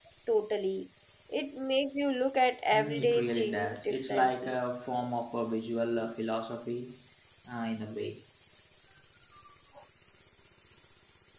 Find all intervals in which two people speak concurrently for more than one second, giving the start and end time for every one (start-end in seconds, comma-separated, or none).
2.7-4.6